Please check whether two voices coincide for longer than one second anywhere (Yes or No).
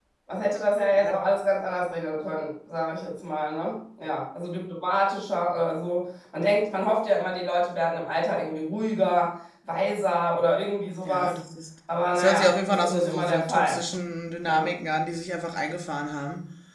Yes